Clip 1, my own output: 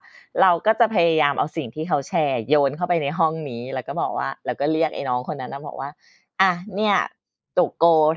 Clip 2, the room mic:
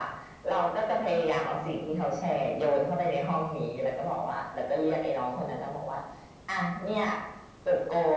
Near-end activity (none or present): none